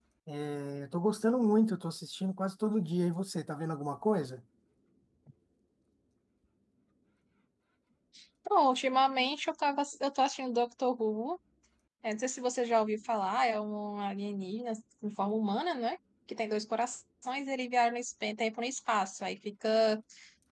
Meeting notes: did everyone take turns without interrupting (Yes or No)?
Yes